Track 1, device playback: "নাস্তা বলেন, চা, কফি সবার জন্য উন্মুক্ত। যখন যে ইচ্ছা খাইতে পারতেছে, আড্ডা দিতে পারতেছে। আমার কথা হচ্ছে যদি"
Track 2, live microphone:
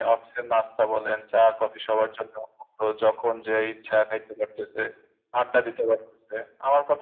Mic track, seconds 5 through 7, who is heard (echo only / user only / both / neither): echo only